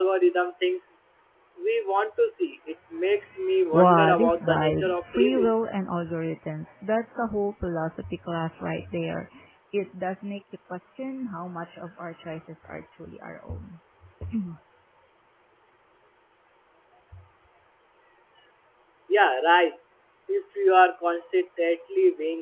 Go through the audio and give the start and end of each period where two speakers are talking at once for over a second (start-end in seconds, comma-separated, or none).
3.8-5.5